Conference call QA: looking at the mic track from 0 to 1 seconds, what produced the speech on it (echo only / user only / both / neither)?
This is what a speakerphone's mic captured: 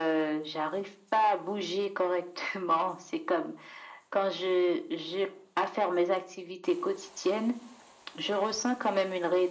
echo only